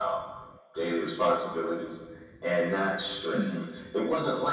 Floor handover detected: No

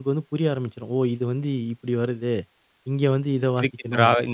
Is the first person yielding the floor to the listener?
Yes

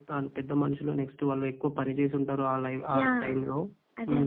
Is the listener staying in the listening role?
No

